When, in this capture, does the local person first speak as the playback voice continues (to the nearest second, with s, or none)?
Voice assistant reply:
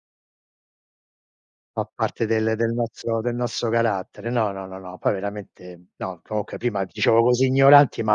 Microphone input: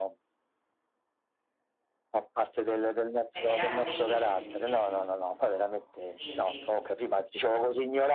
3 s